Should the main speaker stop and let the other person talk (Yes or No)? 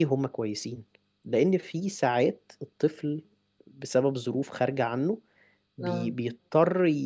No